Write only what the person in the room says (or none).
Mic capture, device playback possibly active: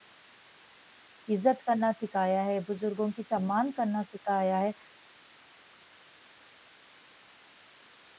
इज़्ज़त करना सिखाया है, बुज़ुर्गों की सम्मान करना सिखाया है।